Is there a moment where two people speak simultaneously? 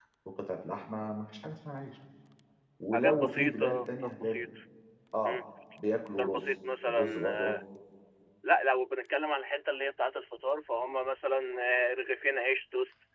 Yes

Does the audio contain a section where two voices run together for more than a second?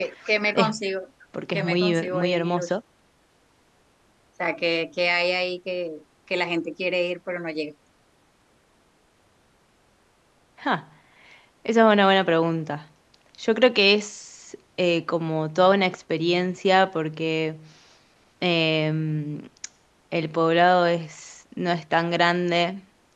Yes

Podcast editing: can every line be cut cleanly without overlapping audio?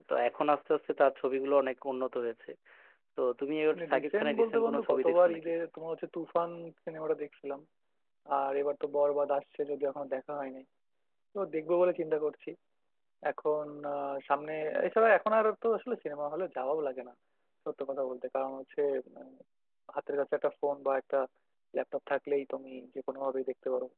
No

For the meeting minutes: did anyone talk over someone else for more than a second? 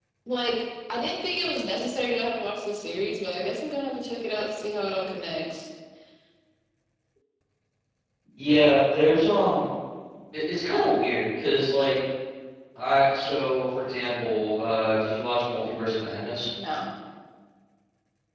No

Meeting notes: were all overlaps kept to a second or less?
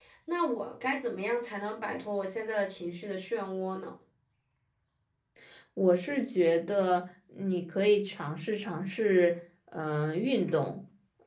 Yes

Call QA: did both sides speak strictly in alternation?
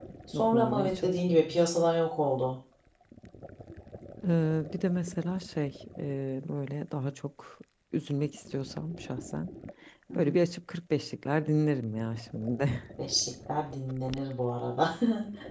No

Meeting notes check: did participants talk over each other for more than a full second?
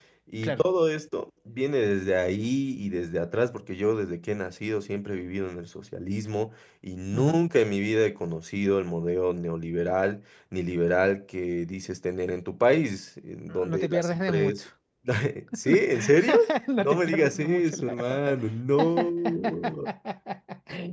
Yes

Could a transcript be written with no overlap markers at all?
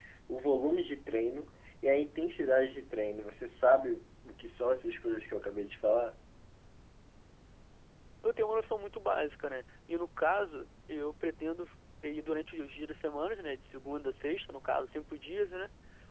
Yes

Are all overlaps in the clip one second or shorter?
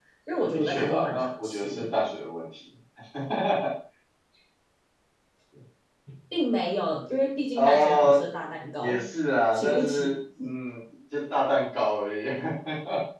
No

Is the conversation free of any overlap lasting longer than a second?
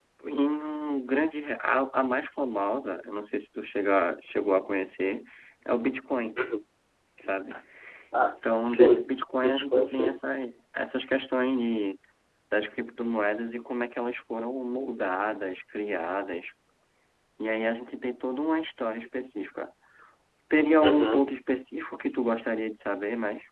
No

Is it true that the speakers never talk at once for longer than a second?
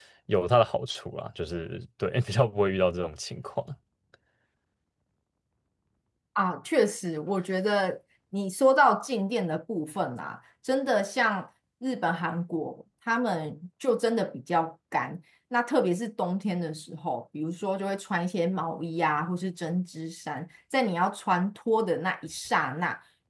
Yes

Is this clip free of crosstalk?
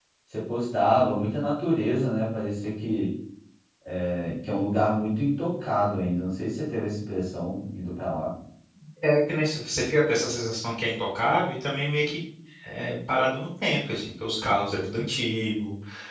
Yes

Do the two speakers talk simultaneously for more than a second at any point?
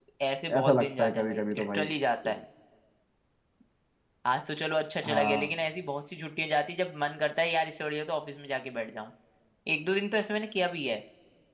Yes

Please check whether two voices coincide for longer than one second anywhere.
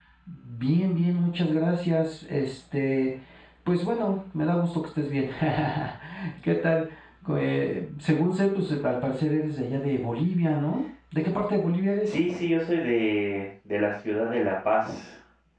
No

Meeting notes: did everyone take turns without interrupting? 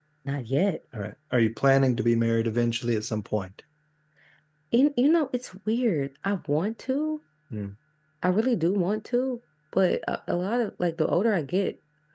Yes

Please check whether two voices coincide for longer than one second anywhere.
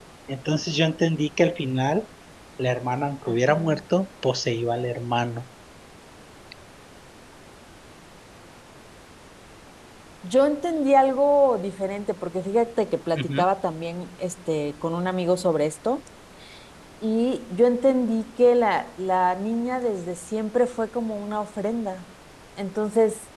No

